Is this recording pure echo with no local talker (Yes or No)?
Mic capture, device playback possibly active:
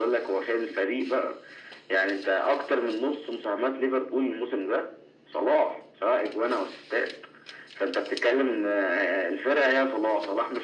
Yes